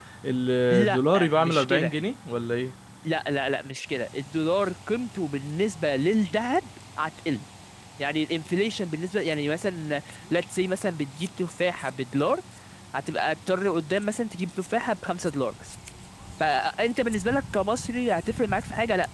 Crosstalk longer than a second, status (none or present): present